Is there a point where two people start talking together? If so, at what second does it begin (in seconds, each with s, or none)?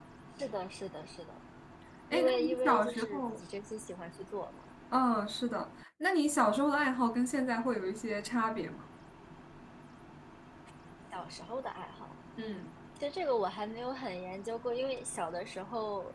2.1 s